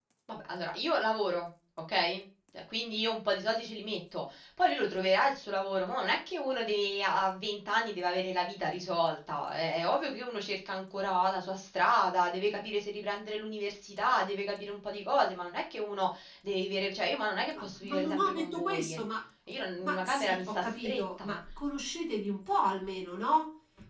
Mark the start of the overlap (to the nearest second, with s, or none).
18 s